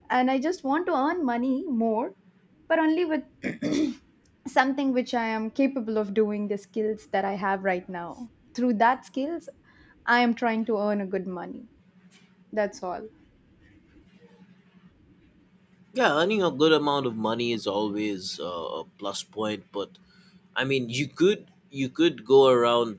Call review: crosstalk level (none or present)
none